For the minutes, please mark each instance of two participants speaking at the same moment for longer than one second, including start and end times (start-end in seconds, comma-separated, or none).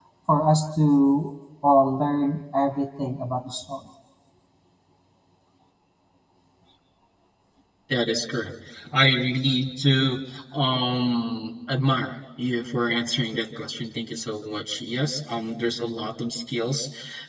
none